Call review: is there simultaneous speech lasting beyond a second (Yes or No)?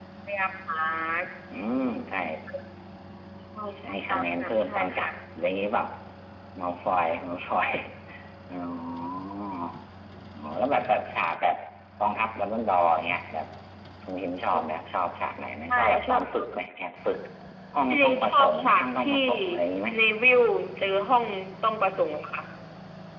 Yes